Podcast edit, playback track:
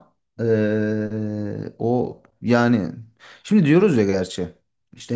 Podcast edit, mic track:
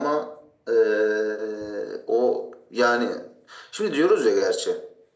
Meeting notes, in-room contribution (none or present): none